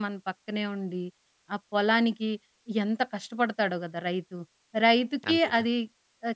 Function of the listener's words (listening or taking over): listening